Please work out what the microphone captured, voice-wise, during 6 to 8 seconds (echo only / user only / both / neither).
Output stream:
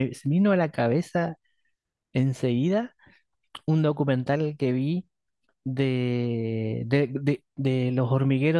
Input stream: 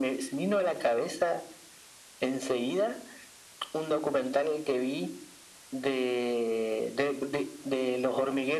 echo only